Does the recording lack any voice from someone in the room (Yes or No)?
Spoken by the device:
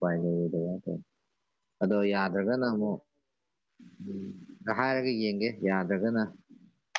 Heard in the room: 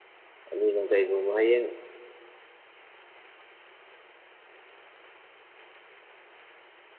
No